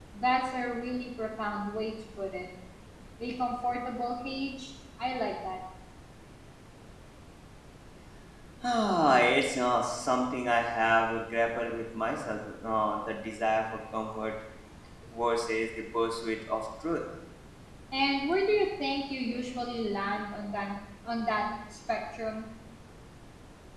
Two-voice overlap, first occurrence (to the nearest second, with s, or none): none